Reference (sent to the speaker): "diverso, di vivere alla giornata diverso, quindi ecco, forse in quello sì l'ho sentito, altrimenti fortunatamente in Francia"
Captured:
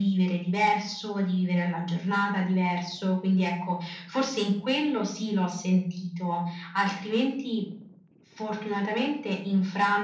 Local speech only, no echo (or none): none